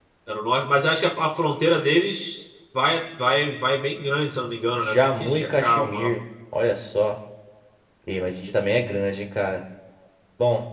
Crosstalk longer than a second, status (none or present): present